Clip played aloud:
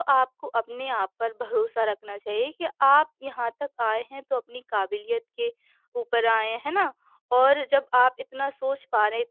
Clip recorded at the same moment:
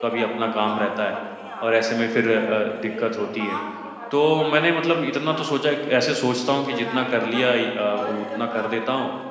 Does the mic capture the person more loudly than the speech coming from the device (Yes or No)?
Yes